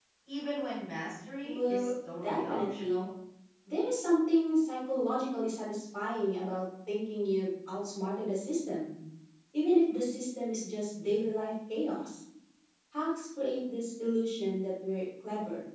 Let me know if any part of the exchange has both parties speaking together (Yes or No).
Yes